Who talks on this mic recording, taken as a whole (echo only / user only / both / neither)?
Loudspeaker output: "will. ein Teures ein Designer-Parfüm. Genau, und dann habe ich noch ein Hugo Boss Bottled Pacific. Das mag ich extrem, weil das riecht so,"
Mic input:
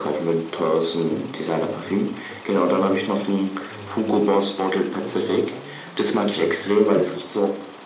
both